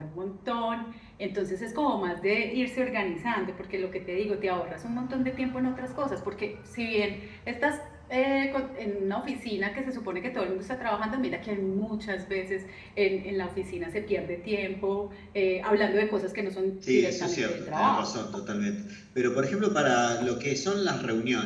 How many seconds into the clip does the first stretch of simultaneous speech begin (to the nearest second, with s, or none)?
17 s